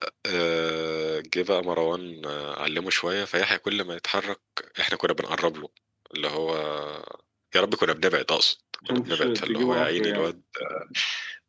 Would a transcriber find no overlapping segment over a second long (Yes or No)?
No